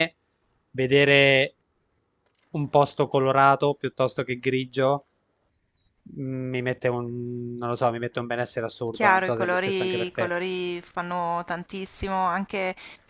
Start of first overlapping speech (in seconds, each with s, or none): 8.9 s